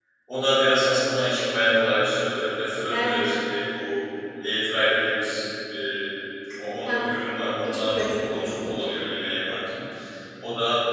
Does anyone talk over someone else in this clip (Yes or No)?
Yes